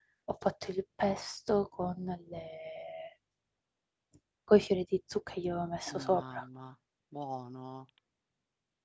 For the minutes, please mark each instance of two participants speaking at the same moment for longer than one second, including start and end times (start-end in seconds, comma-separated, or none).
none